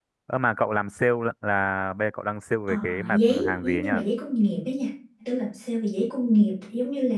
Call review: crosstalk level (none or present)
present